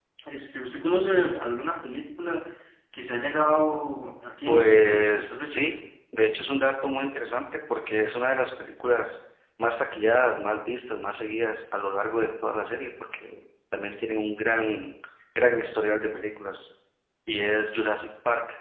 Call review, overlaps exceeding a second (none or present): present